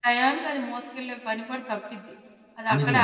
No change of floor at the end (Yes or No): Yes